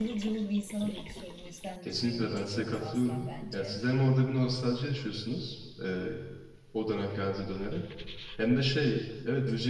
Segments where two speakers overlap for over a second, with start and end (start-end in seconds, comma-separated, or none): 1.8-3.8